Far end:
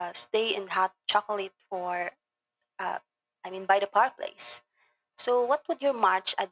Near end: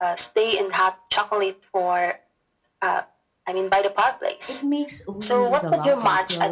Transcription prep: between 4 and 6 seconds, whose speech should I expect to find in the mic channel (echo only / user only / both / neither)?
both